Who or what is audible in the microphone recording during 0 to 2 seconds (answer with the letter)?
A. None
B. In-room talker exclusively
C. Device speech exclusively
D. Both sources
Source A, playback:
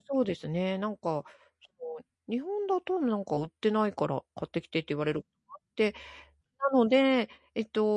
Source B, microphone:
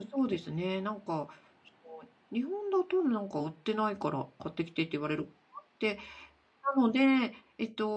C